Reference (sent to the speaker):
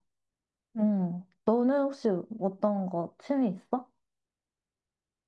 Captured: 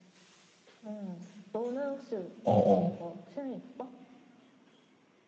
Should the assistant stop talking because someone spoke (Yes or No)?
Yes